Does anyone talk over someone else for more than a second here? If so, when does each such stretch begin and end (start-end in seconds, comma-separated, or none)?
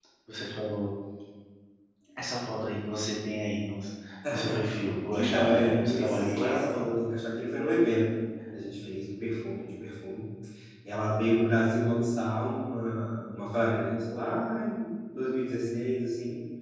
5.1-6.8